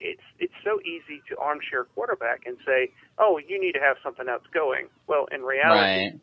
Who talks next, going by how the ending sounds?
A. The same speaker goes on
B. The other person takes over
A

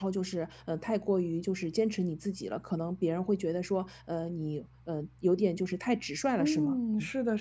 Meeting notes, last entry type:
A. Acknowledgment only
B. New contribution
B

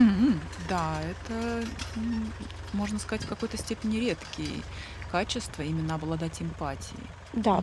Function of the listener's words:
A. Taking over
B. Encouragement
A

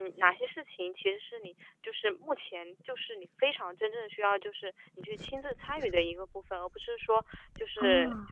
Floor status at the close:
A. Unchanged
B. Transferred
A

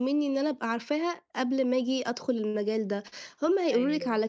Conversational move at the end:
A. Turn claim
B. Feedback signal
B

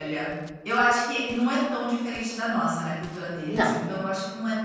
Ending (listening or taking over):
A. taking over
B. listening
B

